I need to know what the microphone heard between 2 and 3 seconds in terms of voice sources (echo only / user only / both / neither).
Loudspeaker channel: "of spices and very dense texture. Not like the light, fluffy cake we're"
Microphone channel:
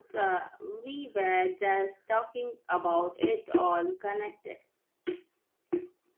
user only